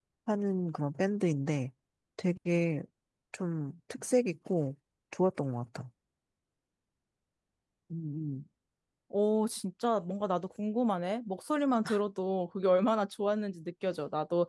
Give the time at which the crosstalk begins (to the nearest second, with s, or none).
none